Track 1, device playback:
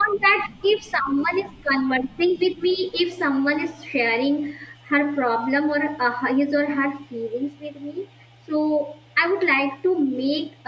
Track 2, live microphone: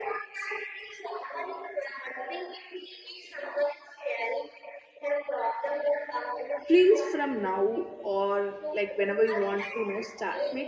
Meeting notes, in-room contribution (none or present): present